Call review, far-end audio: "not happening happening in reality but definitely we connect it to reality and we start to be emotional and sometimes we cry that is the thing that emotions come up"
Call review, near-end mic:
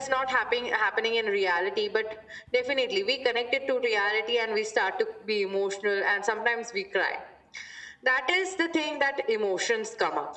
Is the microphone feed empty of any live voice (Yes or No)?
Yes